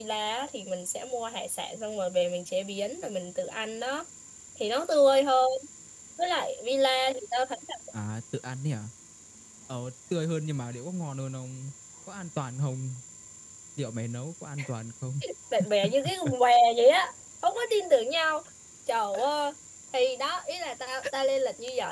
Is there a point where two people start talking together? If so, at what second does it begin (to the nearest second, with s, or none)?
none